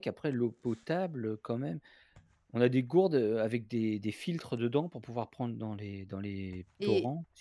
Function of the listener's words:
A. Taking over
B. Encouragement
A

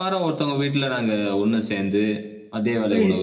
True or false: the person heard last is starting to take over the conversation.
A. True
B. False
B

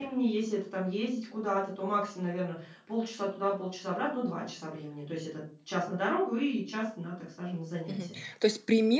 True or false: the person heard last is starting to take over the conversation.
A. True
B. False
A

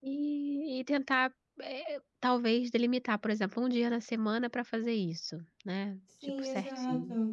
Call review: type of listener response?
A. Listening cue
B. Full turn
B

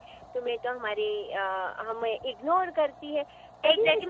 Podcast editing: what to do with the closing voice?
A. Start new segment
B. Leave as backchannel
A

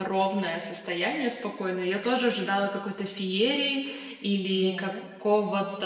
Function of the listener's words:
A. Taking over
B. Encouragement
B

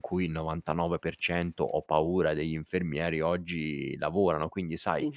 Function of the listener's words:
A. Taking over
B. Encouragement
B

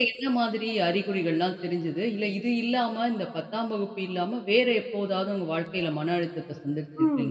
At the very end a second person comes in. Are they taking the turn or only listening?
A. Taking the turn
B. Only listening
A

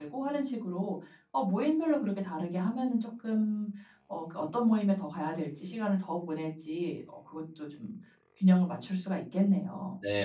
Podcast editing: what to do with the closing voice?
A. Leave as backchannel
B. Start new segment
B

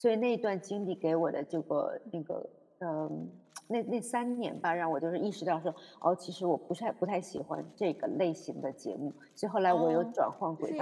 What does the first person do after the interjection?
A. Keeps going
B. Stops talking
B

